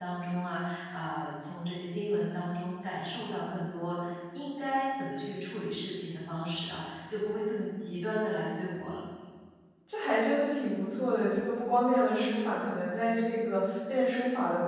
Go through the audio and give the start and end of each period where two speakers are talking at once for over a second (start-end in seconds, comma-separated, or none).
none